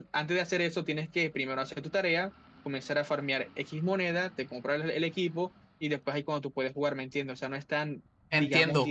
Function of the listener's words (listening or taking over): taking over